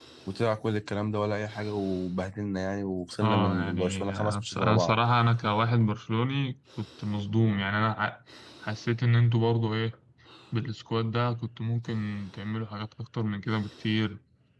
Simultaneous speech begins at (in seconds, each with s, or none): 3.2 s